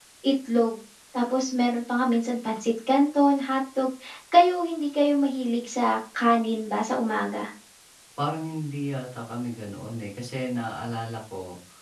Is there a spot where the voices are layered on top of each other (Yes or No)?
No